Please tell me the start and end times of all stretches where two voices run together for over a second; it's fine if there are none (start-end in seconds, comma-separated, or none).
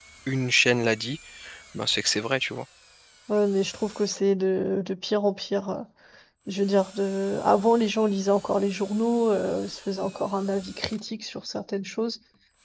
none